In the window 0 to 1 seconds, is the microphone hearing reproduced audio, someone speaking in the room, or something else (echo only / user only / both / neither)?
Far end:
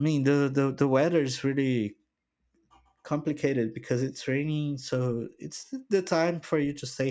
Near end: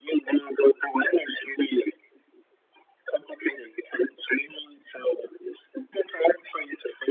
echo only